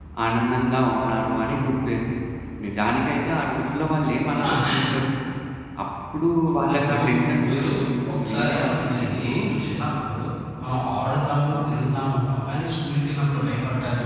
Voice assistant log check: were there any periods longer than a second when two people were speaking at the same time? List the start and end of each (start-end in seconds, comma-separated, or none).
8.1-9.3